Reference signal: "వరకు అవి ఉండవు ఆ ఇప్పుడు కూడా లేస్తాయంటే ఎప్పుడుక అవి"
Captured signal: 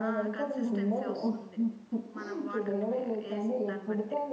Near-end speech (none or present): present